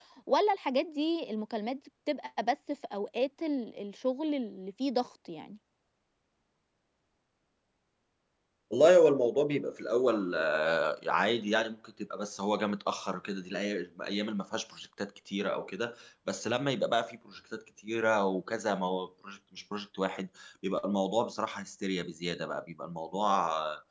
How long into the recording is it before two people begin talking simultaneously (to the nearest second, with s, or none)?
none